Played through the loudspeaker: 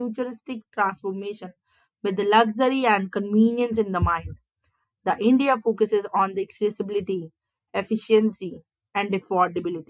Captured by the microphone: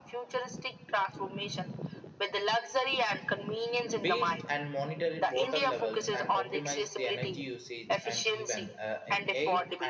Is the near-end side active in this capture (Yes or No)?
Yes